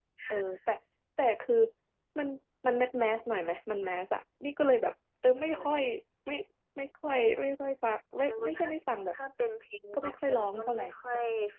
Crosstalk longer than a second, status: present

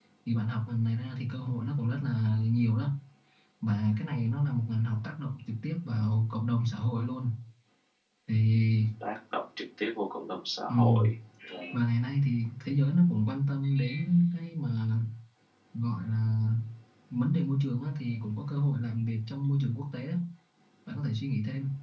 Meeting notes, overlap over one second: none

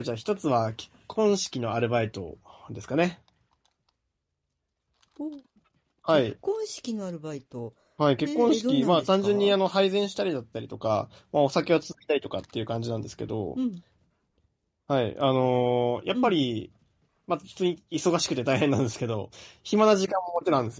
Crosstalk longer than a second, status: present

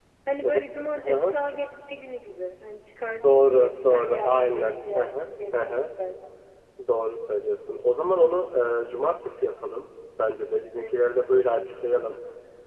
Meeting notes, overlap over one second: present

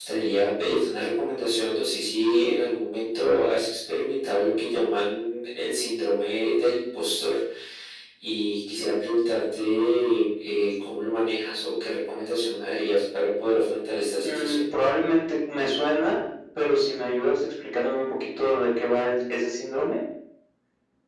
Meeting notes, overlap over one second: none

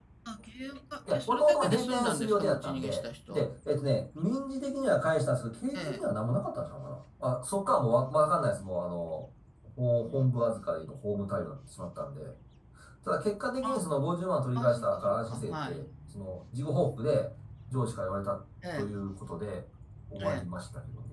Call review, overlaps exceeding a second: present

